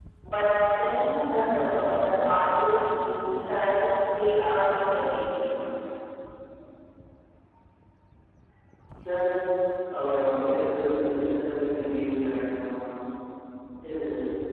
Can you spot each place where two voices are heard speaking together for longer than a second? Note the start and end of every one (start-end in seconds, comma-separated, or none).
none